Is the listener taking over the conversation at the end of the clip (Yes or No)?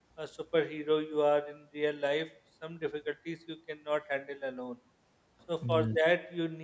No